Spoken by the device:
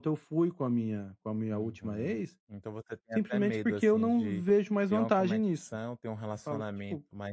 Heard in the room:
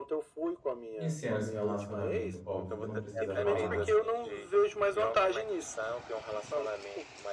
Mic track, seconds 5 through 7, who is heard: echo only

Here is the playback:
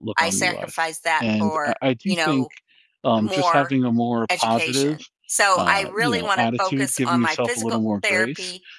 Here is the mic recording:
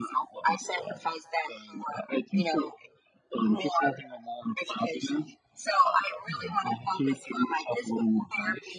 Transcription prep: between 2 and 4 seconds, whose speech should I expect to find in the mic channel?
echo only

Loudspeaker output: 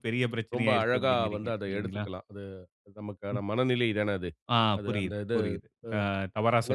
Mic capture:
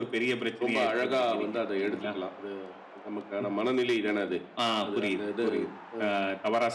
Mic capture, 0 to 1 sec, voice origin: echo only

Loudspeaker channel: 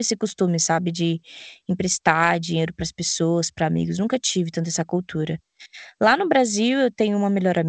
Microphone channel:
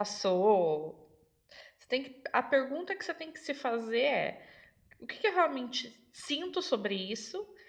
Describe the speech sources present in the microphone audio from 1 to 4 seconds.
user only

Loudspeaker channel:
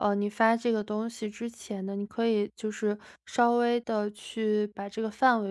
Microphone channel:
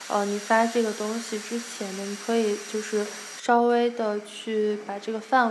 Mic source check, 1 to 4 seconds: echo only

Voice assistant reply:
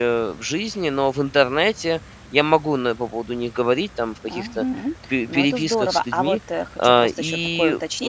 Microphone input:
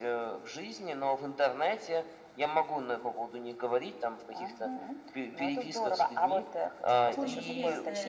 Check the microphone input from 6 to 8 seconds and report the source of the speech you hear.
both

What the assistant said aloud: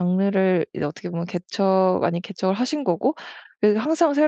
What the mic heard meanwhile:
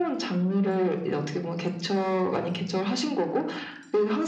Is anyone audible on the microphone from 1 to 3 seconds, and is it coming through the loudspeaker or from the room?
echo only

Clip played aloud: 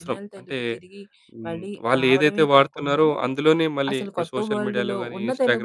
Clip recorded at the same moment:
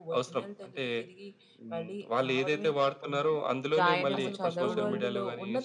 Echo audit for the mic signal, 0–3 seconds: echo only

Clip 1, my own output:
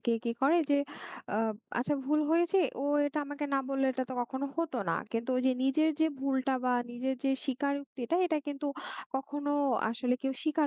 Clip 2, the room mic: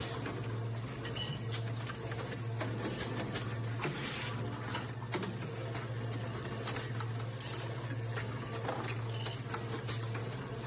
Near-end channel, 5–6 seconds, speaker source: neither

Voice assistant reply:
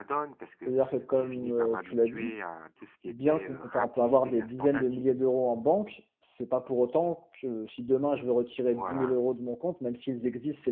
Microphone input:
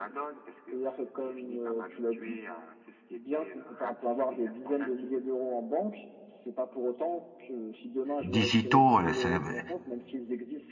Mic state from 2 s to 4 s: echo only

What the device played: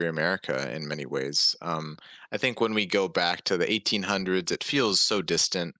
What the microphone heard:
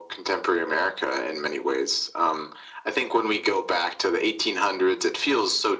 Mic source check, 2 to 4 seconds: echo only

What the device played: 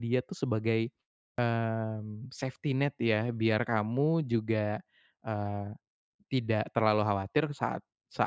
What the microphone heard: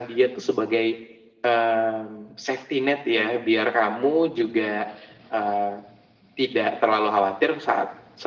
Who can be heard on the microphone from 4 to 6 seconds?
echo only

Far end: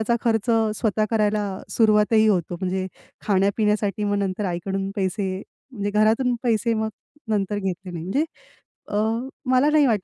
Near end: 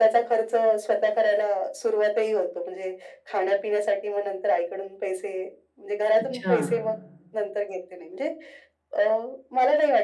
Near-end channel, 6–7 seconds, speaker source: both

